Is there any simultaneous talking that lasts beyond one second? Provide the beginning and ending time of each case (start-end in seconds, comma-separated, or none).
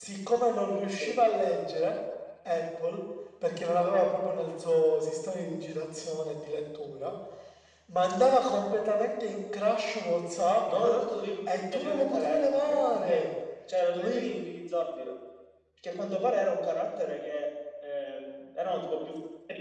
11.7-13.3